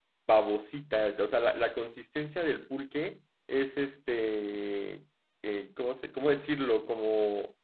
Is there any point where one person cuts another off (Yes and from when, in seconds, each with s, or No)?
No